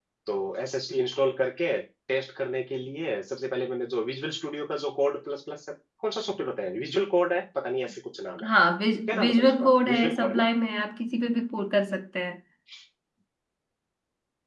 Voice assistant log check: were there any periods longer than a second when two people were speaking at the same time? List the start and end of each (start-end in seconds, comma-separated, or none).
9.1-10.5